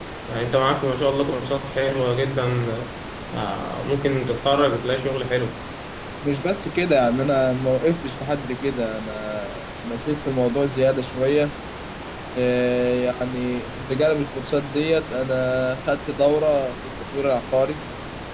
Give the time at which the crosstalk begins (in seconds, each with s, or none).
none